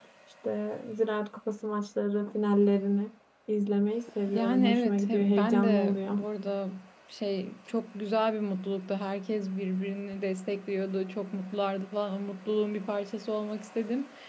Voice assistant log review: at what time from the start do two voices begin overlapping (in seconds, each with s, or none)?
4.3 s